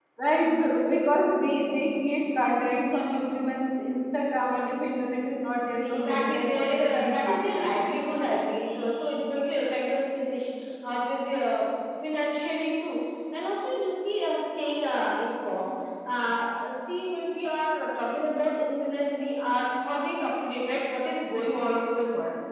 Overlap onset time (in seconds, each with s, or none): 5.8 s